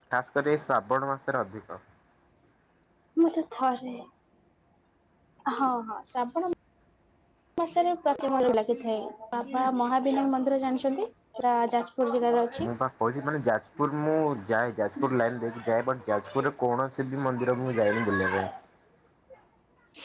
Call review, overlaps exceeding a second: none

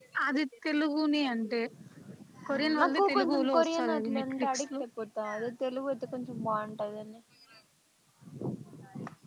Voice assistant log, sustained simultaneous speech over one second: present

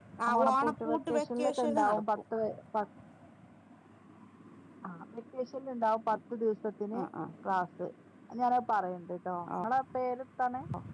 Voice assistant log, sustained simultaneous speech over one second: present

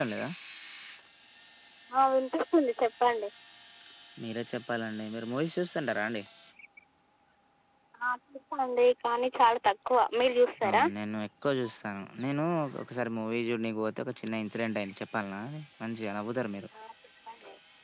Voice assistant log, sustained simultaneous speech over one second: none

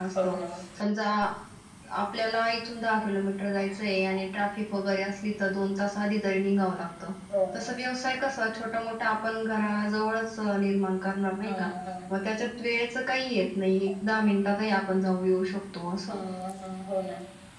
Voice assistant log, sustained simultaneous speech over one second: none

